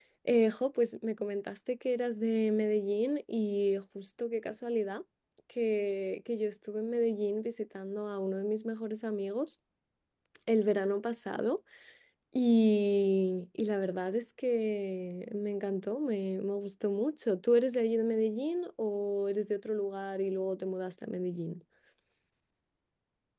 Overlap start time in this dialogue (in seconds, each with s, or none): none